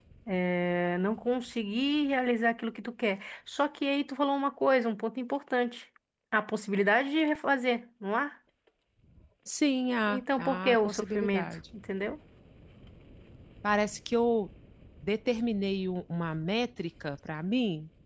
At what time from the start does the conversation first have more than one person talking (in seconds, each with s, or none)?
10.1 s